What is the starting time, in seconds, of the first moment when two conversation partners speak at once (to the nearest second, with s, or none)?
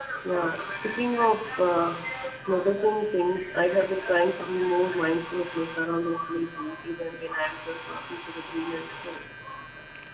none